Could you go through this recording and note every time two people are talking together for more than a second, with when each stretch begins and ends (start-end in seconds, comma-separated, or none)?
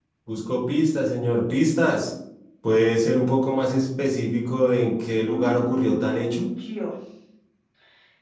5.2-6.4